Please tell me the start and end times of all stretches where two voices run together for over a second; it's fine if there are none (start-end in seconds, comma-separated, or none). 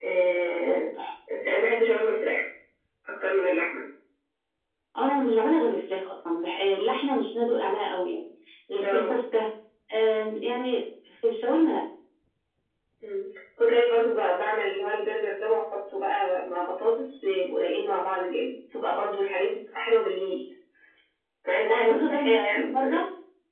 21.7-23.0